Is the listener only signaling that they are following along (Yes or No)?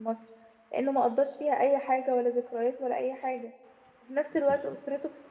Yes